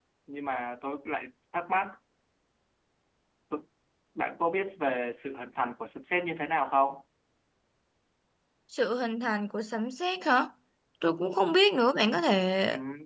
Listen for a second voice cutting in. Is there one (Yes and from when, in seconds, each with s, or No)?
No